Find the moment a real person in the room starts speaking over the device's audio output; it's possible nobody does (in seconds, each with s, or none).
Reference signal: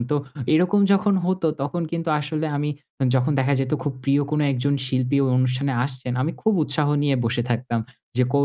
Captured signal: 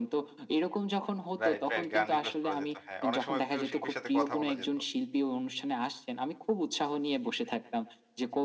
1.4 s